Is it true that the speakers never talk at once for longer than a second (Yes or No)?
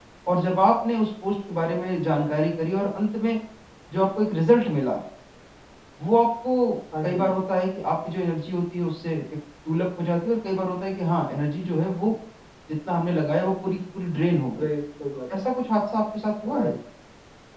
Yes